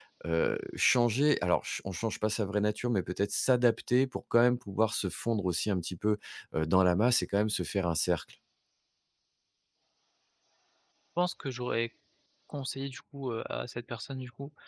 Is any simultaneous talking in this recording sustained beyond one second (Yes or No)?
No